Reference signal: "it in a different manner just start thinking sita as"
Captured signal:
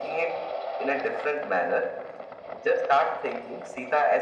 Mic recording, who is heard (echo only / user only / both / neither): echo only